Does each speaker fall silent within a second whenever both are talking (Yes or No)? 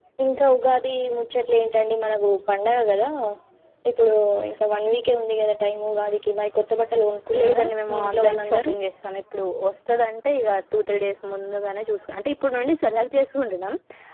No